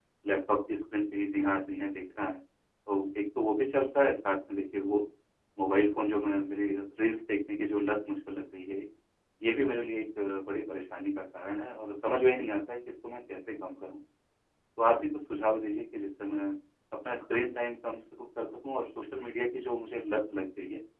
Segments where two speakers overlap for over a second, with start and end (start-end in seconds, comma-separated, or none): none